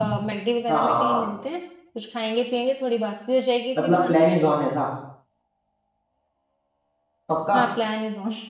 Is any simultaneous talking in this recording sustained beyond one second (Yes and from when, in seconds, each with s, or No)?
No